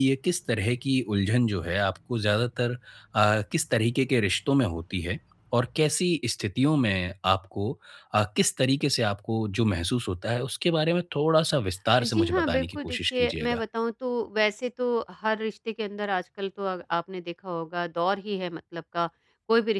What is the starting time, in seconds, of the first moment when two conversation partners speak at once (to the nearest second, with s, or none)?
12 s